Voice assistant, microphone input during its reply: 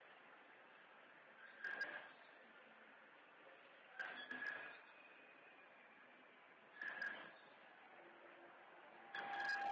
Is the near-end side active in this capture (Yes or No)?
No